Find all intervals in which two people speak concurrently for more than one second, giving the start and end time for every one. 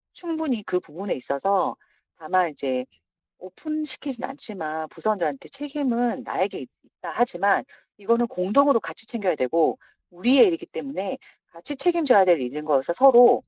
none

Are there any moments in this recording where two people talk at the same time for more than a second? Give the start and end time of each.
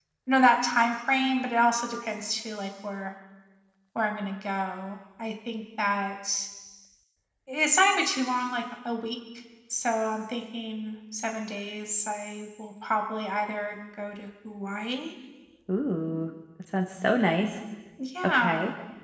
none

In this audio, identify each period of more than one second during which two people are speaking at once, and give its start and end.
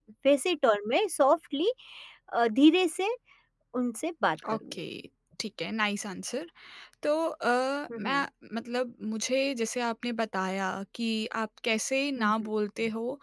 none

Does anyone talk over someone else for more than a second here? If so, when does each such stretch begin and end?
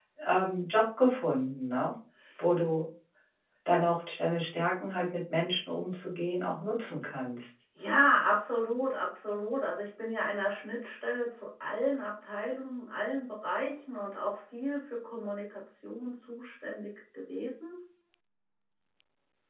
none

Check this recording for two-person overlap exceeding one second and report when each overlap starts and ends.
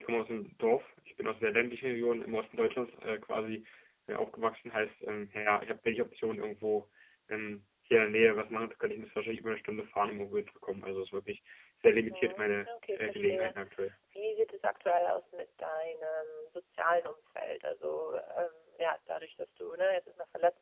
12.1-13.5

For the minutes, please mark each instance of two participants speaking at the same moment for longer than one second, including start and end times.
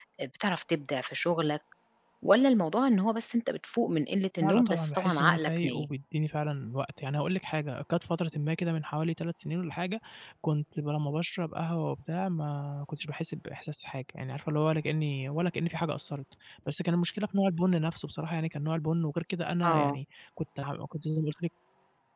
4.4-5.9

